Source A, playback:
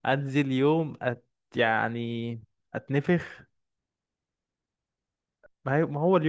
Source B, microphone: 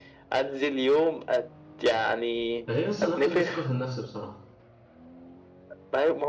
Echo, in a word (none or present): present